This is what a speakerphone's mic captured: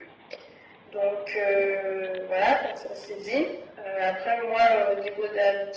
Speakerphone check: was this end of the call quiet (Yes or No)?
Yes